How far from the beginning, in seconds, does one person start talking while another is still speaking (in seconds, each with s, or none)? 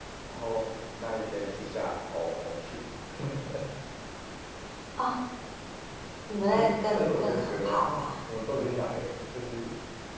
6.5 s